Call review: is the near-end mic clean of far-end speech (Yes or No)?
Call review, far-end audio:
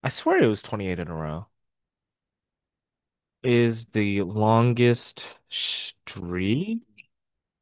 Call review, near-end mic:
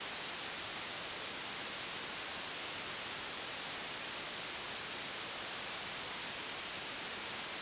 Yes